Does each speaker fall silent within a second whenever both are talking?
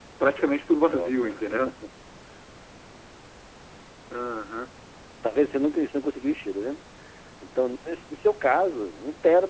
Yes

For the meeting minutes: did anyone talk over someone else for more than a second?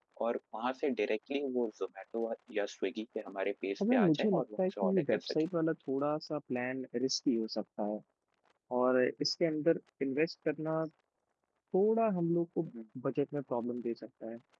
Yes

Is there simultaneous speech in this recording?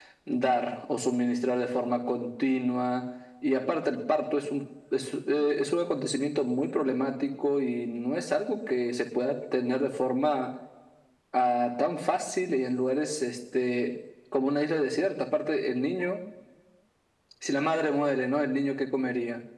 No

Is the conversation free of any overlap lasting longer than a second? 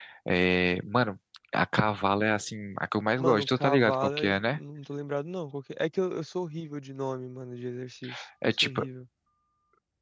No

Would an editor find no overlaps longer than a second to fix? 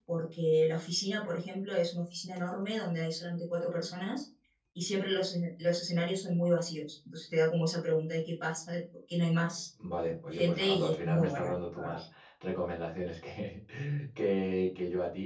No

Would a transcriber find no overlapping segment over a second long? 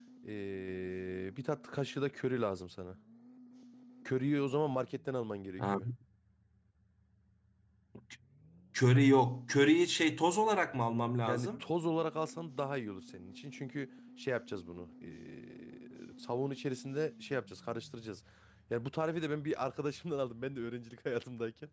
Yes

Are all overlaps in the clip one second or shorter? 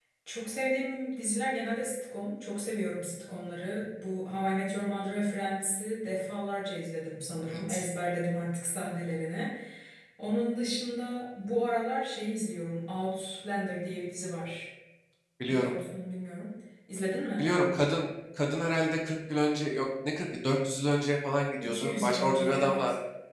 No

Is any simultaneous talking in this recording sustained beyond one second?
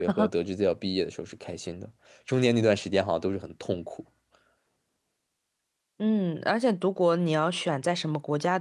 No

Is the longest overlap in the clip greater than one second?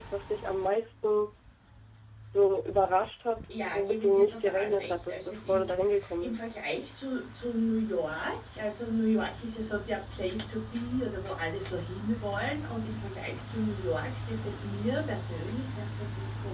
Yes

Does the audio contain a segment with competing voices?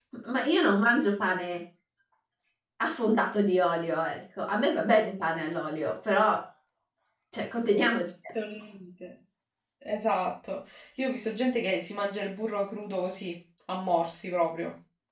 No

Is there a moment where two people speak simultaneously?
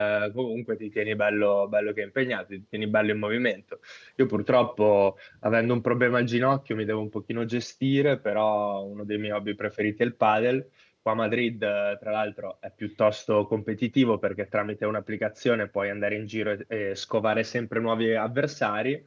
No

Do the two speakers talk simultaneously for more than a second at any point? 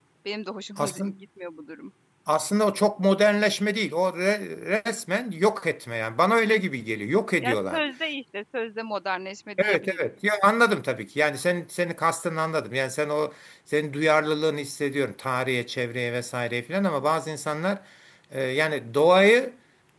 No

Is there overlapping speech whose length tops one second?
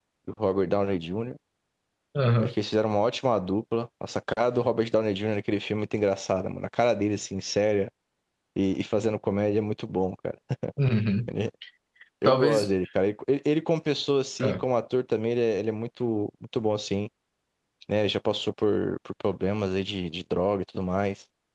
No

